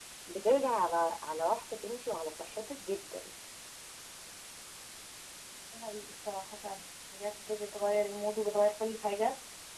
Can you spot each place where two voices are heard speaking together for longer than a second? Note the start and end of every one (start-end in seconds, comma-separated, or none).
none